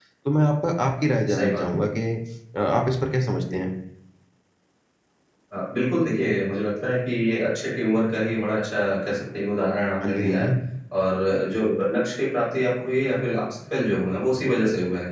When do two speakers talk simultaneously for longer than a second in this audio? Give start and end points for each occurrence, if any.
none

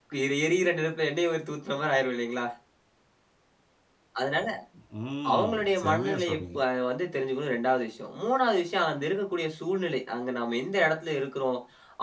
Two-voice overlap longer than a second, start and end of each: 5.3-6.6

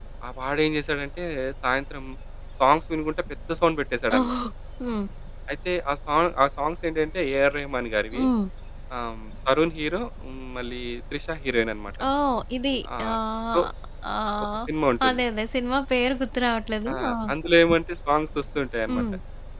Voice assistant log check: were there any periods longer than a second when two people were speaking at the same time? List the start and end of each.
none

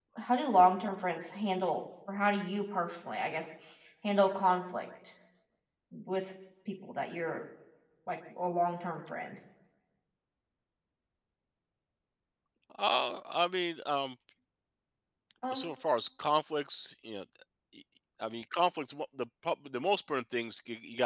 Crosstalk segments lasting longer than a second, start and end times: none

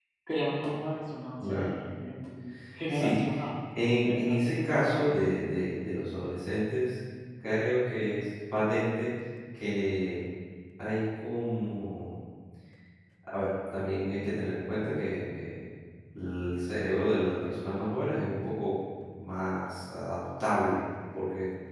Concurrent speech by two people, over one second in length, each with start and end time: 3.8-5.2

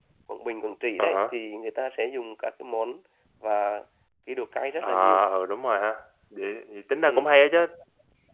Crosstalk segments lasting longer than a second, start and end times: none

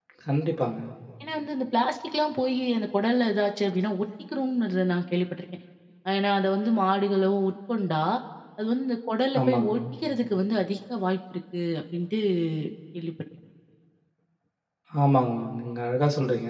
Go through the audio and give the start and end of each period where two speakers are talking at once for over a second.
none

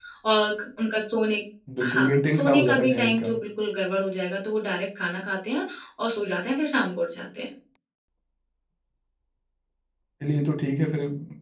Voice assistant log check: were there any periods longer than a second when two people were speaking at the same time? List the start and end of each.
1.8-3.3

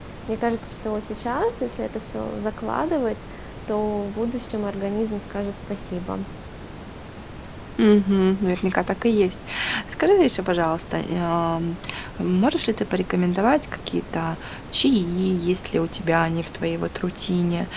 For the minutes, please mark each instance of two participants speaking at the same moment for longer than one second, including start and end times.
none

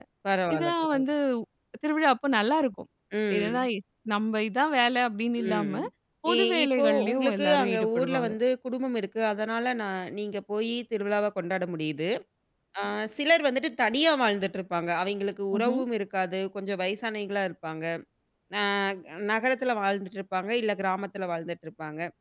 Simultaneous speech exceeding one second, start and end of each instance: 6.3-8.3

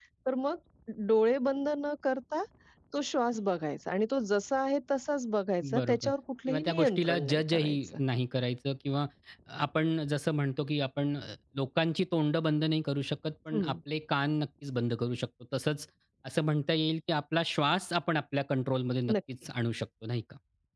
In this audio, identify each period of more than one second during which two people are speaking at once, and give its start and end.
6.5-8.0

